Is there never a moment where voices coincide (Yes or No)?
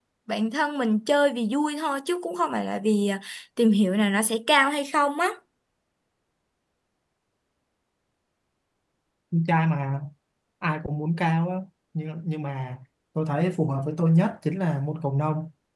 Yes